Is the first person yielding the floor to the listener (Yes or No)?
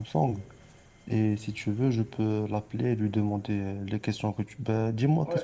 Yes